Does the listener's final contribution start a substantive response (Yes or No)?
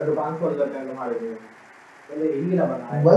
Yes